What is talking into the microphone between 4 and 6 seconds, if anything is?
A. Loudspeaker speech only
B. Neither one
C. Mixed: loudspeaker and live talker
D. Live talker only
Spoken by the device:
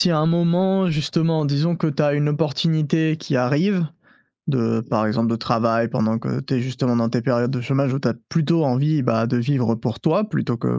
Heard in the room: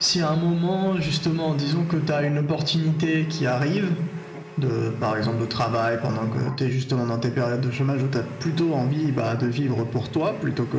A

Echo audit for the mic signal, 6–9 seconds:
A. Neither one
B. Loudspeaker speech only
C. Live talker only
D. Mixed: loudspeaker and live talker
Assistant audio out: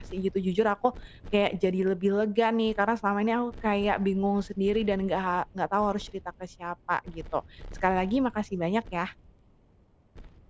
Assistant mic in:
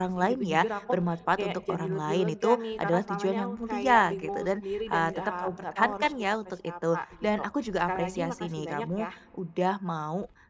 D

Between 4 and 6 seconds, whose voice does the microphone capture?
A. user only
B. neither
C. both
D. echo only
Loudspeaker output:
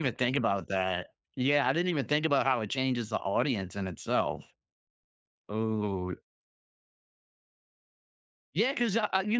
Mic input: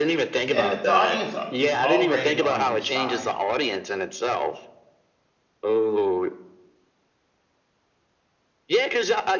D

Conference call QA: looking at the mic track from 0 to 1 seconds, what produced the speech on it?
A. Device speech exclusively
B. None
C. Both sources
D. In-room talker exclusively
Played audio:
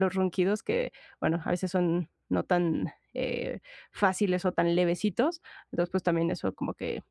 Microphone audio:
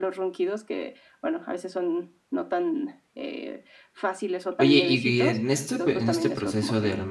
A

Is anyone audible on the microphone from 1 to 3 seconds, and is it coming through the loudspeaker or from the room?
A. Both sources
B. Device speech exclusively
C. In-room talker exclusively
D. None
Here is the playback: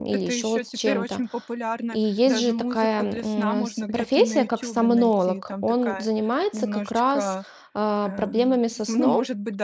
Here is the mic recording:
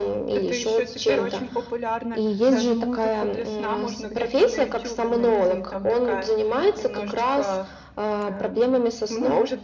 B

